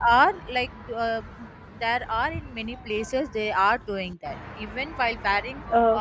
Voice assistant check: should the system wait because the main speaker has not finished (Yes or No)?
Yes